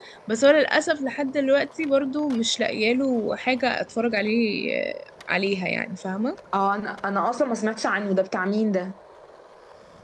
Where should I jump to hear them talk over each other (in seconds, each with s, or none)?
none